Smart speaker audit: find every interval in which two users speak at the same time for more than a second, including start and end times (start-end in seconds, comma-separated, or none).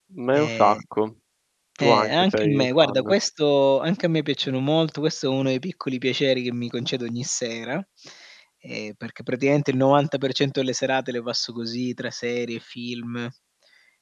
1.8-3.1